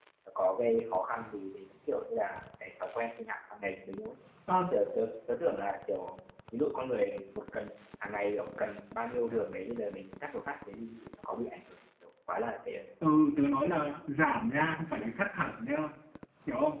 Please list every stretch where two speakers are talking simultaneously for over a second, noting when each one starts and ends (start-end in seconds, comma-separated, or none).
none